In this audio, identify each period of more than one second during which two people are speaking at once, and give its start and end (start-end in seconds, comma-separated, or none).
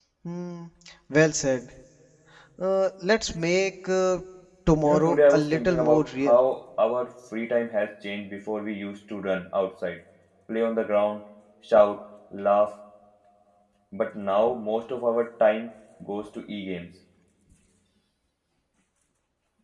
4.8-6.4